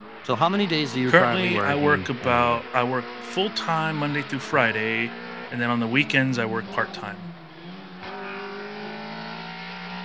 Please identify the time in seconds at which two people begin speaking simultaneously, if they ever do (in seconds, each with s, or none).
1.1 s